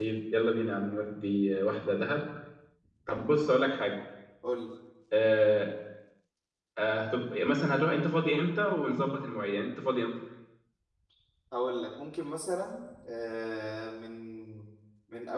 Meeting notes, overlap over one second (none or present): none